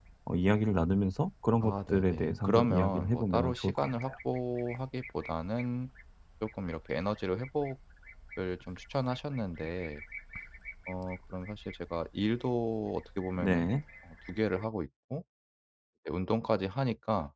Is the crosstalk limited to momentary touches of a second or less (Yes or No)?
No